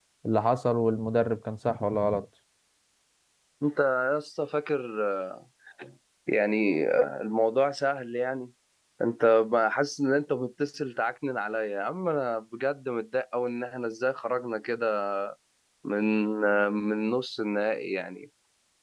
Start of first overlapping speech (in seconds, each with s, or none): none